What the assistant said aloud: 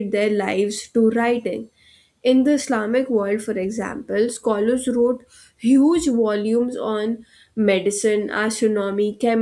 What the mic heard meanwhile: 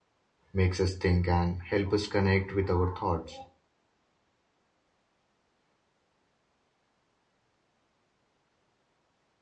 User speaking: Yes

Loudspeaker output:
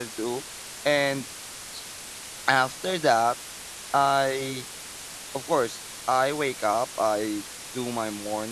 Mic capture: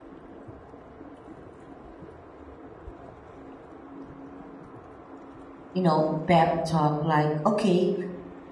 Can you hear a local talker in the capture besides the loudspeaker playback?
Yes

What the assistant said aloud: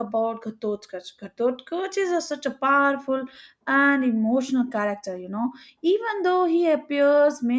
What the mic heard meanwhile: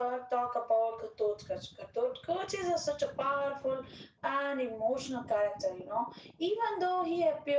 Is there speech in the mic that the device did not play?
No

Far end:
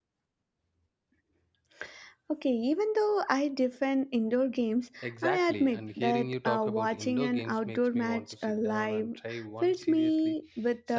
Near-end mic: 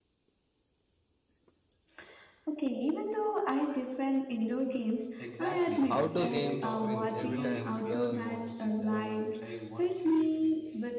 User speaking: Yes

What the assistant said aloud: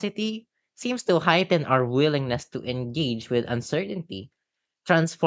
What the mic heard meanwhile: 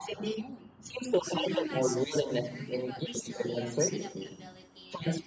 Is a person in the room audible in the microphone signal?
Yes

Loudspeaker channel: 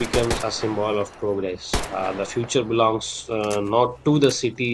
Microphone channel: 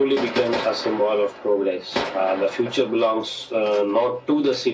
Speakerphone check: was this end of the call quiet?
Yes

